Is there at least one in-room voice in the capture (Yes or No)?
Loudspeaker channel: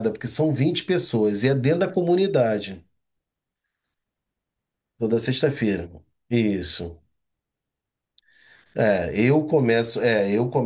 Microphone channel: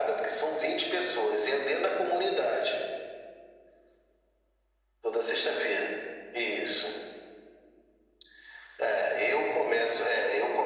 No